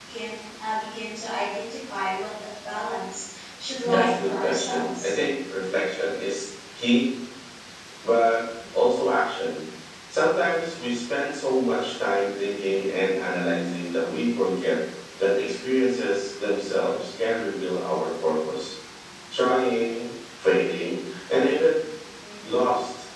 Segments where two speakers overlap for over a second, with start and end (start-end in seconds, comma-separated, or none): 3.8-5.1